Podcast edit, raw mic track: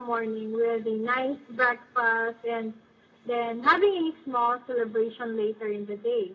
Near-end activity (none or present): none